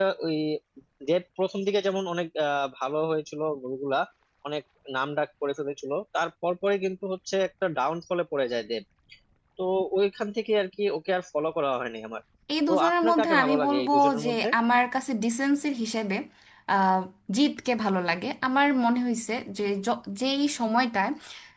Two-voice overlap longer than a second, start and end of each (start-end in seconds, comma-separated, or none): 12.7-14.5